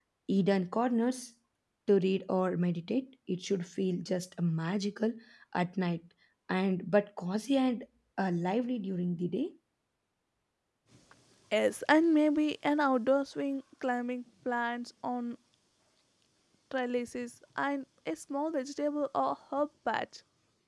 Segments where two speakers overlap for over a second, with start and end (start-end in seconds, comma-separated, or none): none